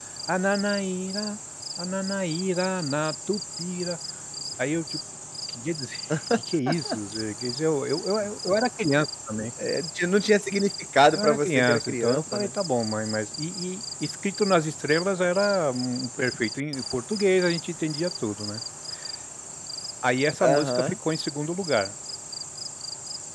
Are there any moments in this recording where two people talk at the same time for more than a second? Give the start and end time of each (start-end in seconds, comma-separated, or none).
11.1-12.5